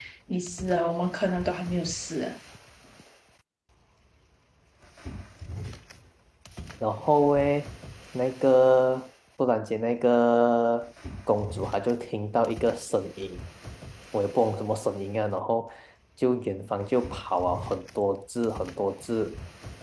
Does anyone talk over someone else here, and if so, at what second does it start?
none

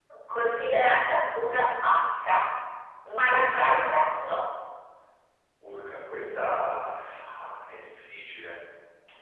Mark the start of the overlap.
none

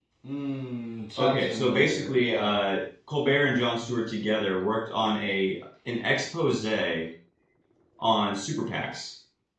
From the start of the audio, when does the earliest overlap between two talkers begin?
1.2 s

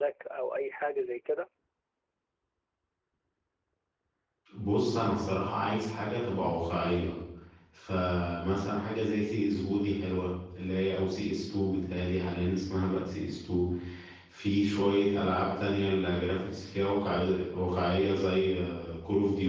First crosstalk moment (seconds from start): none

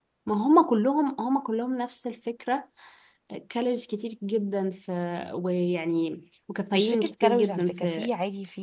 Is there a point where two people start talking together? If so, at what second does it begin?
6.7 s

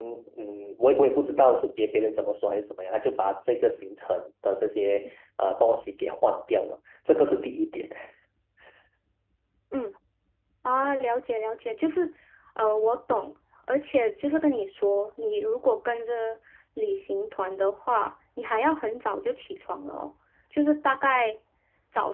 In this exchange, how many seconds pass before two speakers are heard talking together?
none

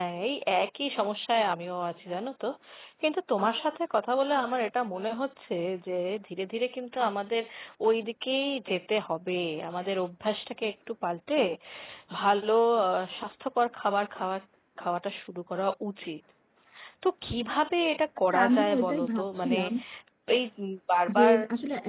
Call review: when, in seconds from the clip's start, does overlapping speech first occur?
18.3 s

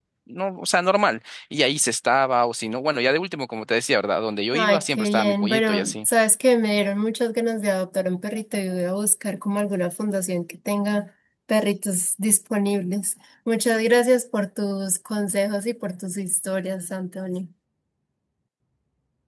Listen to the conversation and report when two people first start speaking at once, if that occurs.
4.5 s

